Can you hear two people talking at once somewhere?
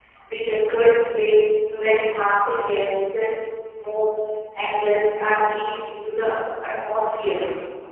No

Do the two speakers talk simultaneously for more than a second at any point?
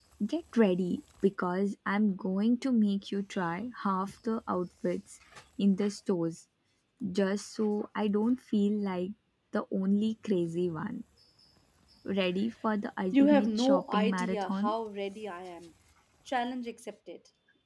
Yes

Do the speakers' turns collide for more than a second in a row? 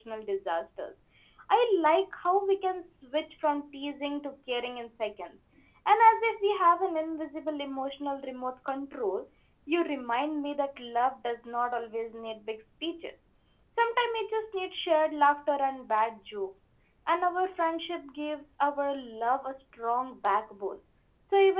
No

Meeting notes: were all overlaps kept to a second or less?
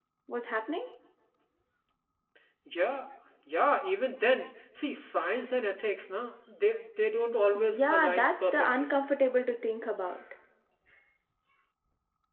No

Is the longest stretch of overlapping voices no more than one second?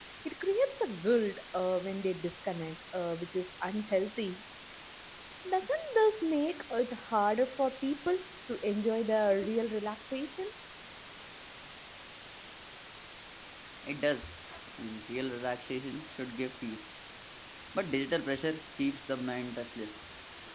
Yes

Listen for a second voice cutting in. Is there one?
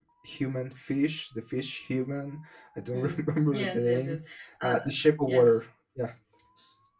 Yes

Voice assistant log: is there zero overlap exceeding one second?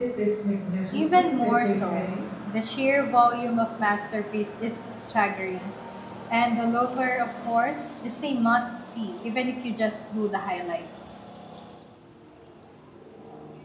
No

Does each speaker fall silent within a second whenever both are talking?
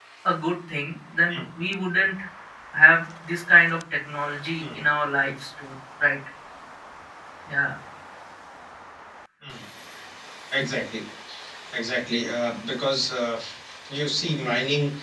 Yes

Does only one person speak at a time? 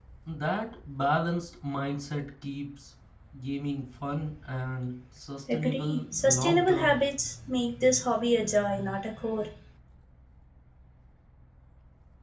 No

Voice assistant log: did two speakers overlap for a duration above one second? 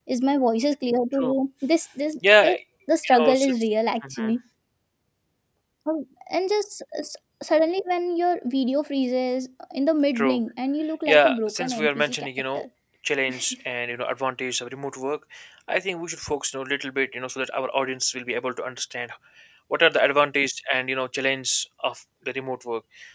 Yes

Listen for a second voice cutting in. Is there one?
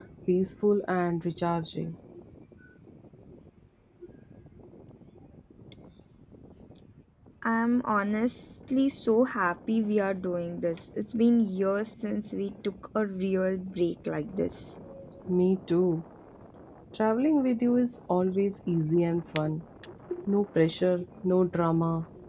No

